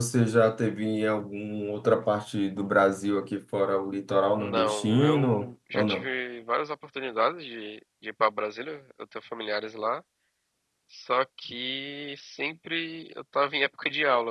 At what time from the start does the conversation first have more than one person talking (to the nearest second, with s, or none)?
4 s